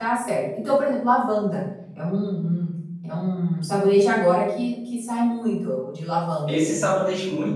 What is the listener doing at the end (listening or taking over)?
taking over